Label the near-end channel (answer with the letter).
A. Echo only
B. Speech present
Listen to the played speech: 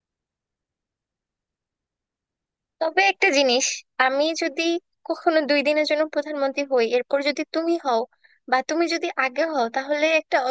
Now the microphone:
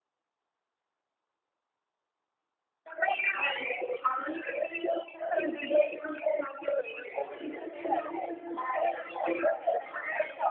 B